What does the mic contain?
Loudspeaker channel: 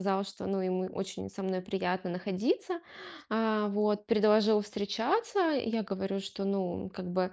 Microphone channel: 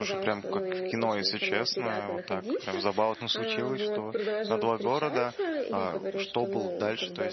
both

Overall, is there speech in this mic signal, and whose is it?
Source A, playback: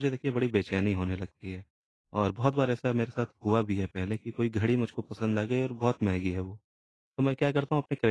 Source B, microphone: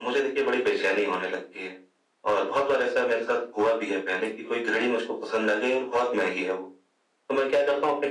echo only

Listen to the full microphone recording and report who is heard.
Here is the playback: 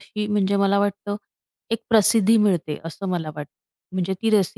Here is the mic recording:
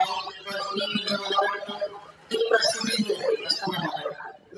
echo only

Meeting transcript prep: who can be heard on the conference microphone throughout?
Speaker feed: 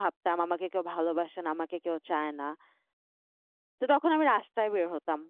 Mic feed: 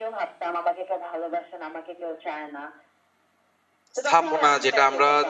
both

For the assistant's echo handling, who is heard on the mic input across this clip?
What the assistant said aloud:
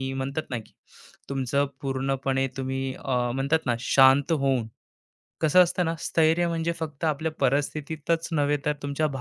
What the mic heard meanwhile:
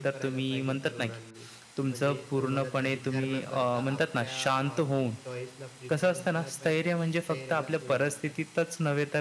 both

